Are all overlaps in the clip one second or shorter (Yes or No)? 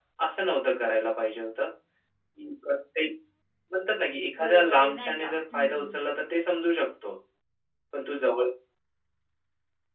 No